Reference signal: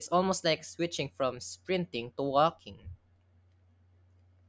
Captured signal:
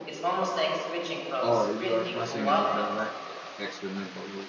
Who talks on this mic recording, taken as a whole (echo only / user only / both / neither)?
both